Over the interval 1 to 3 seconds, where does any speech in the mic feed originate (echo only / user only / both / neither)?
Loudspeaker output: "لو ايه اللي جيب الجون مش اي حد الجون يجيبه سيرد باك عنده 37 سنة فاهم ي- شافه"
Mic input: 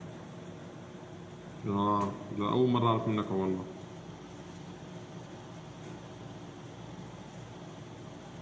user only